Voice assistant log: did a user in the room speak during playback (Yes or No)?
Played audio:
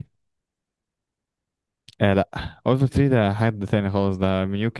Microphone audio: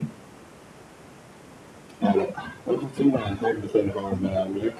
No